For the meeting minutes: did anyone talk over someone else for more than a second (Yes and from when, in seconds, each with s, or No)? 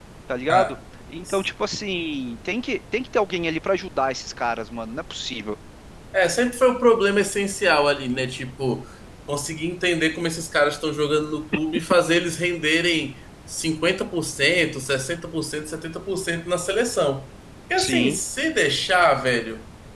No